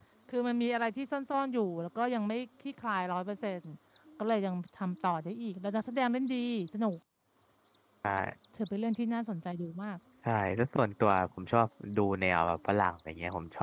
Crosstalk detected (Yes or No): No